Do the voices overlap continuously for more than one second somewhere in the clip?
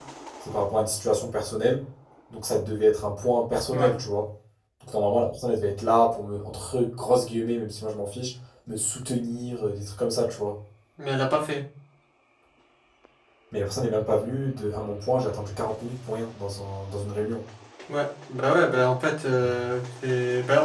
No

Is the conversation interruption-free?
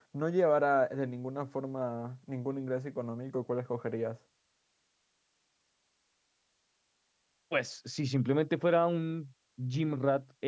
Yes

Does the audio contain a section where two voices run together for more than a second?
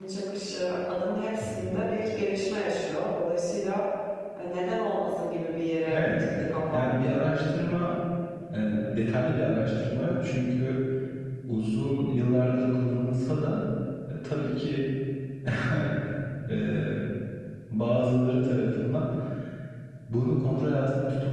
No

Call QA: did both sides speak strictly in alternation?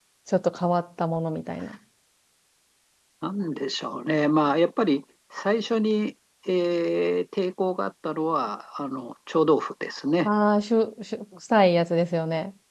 Yes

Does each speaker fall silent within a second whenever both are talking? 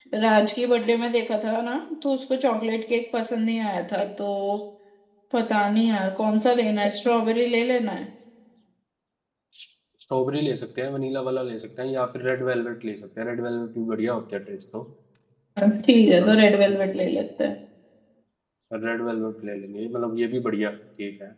Yes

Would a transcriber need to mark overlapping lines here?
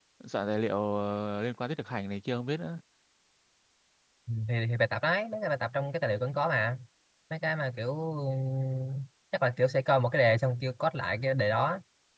No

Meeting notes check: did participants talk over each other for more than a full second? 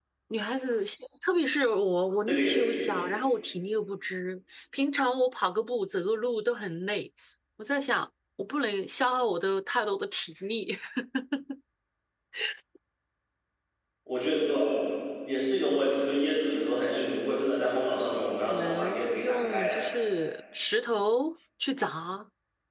Yes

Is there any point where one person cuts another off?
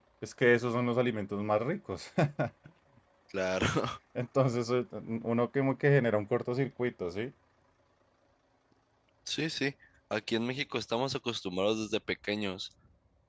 No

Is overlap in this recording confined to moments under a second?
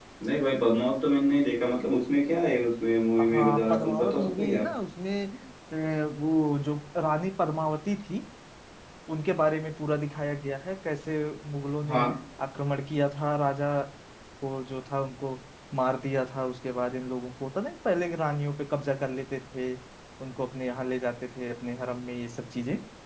No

